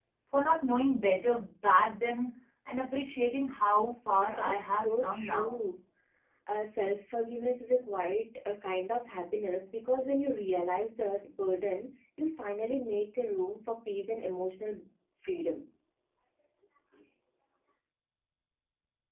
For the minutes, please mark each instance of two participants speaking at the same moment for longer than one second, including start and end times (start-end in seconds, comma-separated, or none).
4.4-5.6